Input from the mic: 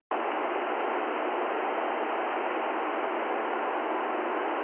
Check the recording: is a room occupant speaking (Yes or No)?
No